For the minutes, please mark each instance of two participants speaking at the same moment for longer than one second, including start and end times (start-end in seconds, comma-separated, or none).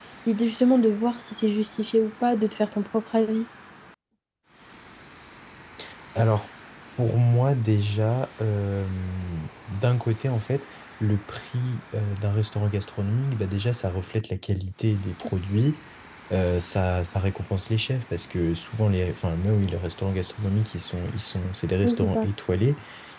none